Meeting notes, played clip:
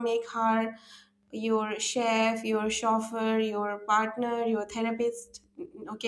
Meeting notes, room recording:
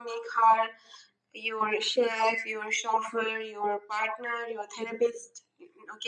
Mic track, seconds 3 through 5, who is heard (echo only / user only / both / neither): echo only